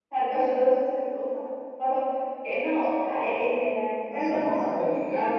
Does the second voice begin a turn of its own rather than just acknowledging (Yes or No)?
Yes